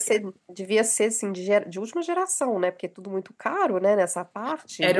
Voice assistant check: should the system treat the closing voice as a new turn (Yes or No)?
Yes